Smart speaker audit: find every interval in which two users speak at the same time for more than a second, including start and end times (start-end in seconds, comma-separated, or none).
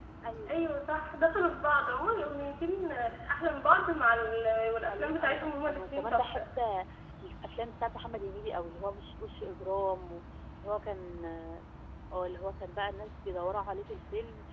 4.9-6.4